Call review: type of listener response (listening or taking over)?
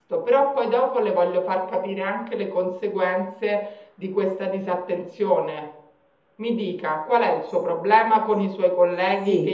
listening